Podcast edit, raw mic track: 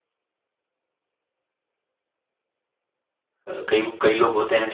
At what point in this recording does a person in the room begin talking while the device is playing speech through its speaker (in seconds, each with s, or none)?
3.5 s